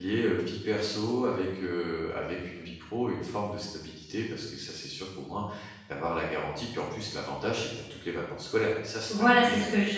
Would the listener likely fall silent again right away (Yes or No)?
No